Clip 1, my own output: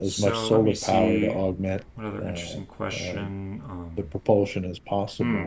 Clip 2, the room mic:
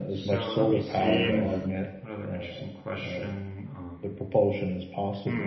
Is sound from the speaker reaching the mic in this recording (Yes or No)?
Yes